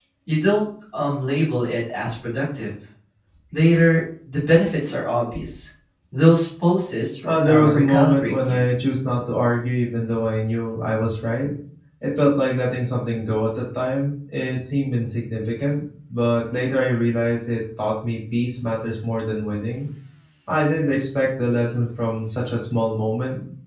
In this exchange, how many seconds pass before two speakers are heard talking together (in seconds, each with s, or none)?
7.2 s